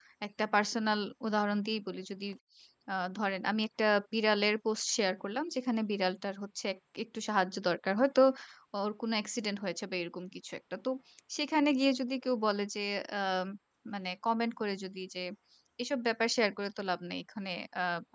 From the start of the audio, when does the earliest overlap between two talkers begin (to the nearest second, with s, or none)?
none